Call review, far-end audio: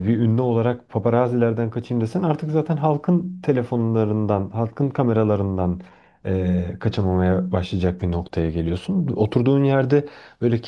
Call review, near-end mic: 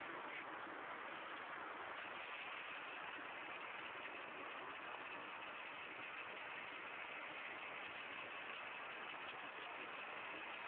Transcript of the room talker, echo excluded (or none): none